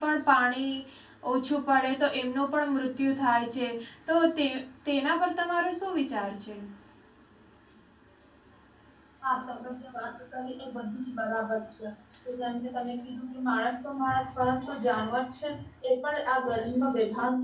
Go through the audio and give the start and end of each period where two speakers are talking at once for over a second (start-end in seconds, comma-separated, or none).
none